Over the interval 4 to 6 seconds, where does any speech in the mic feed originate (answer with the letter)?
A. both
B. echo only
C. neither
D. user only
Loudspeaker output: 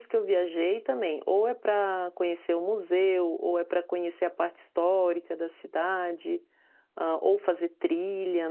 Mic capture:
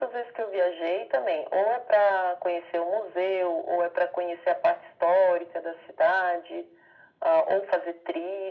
B